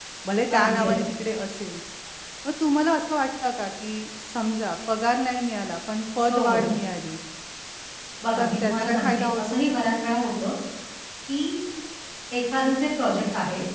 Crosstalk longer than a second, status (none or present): present